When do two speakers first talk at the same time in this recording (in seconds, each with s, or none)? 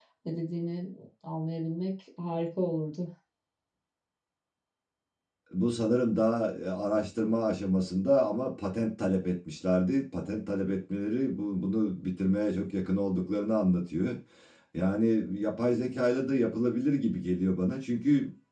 none